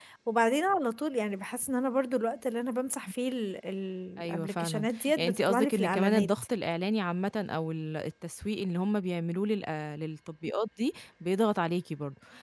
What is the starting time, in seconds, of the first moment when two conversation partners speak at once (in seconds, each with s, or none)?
4.2 s